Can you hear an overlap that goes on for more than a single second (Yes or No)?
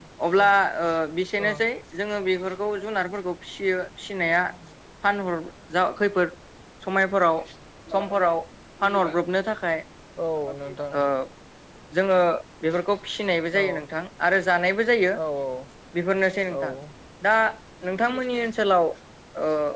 No